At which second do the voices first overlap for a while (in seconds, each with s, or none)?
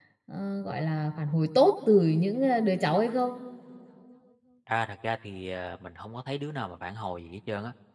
none